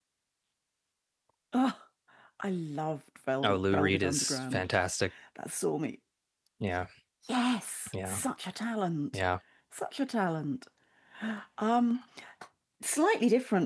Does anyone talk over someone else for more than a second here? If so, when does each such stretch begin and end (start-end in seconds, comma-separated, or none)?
3.4-4.6